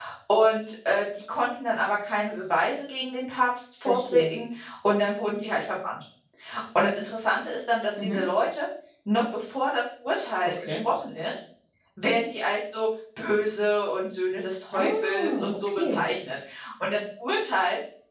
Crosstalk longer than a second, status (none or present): present